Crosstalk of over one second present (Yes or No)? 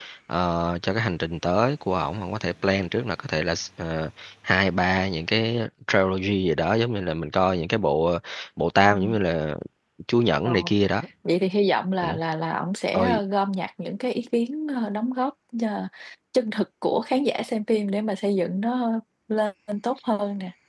No